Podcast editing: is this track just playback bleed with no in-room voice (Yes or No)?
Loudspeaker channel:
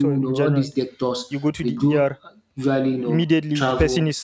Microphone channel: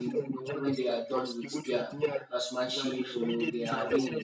No